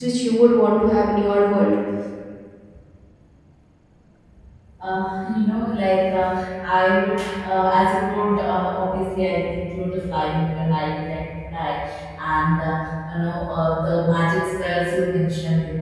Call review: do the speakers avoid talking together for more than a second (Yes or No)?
Yes